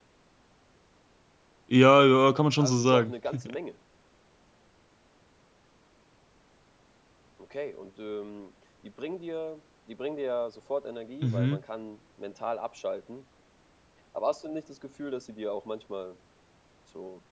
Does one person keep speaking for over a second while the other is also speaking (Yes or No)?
No